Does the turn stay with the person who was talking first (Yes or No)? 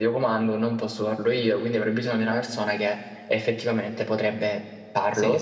Yes